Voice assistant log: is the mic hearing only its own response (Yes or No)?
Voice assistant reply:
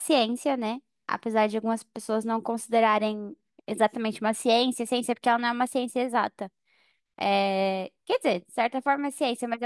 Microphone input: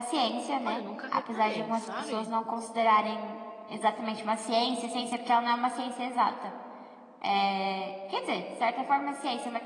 No